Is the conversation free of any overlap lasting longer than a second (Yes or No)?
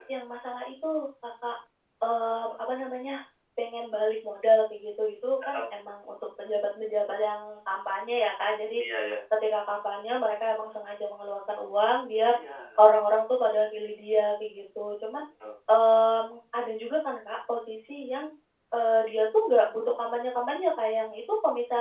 Yes